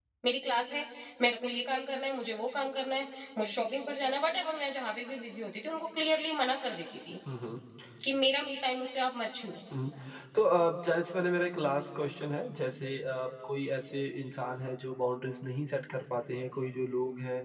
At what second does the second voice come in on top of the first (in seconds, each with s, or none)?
none